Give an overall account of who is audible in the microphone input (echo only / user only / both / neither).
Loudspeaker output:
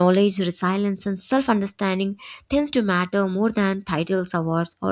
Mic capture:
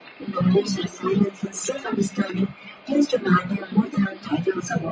echo only